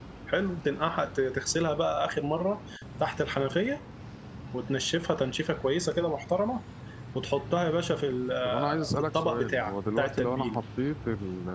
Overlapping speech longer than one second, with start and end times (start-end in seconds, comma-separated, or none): 8.4-10.6